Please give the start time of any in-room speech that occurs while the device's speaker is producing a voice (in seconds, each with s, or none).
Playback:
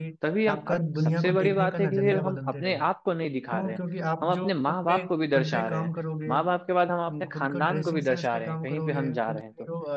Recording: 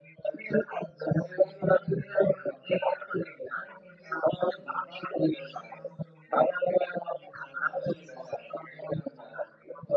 none